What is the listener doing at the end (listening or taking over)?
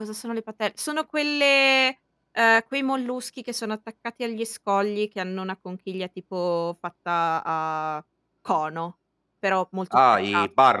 taking over